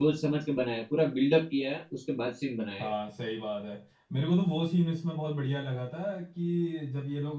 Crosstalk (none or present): none